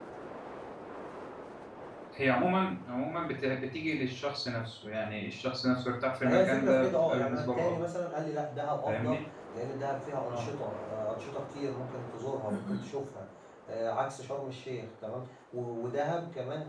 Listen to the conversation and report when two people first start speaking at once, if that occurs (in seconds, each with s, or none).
6.2 s